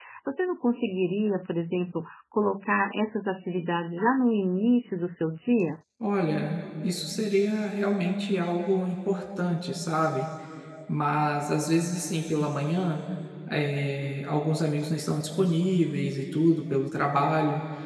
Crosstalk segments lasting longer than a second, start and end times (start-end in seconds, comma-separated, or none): none